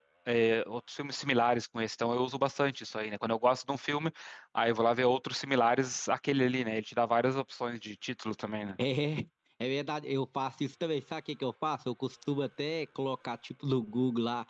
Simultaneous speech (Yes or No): No